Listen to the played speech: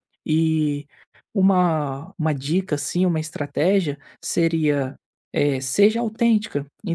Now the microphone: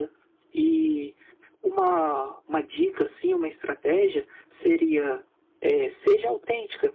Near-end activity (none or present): none